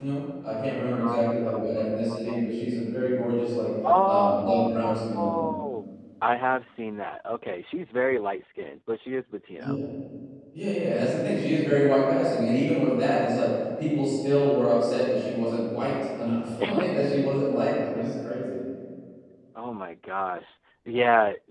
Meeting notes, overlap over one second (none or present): present